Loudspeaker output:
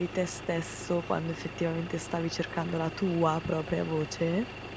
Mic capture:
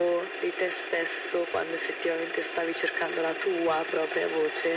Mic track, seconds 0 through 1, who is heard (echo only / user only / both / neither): echo only